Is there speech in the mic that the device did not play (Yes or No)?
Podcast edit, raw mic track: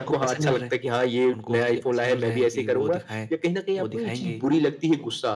No